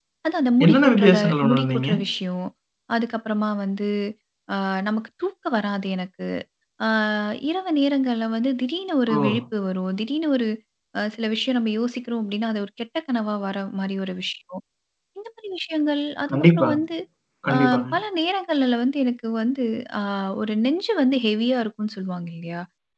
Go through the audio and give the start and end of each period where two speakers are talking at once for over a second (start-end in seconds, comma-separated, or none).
0.6-1.9